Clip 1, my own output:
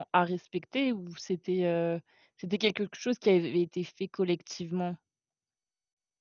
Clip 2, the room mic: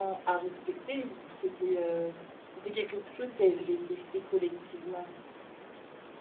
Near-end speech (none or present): none